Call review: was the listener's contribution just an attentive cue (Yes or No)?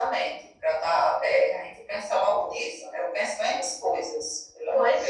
No